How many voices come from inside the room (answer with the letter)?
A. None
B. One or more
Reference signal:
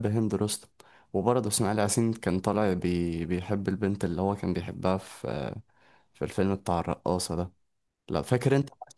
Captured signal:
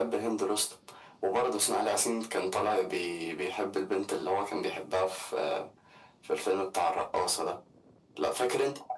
A